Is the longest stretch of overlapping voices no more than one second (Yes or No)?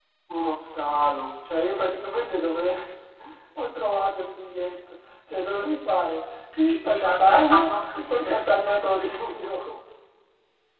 No